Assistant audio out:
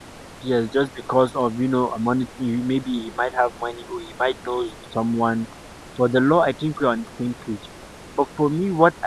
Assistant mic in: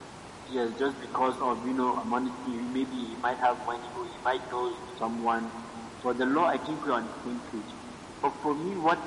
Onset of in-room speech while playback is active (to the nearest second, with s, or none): none